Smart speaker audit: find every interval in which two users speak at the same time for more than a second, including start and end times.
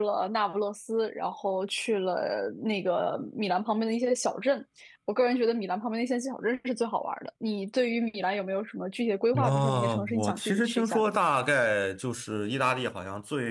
9.4-11.1

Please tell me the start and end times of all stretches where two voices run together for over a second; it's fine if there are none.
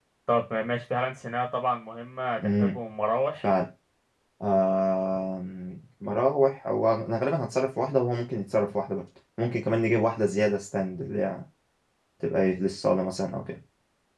none

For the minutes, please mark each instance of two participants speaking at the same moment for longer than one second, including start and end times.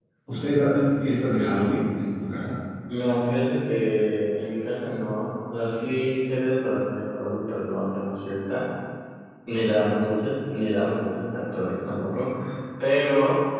none

